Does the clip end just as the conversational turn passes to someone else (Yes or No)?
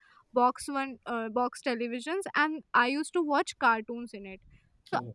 No